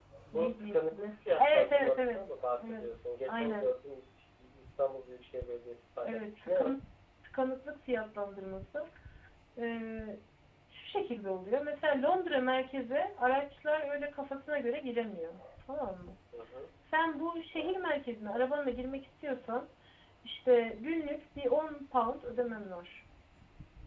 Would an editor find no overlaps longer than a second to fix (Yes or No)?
No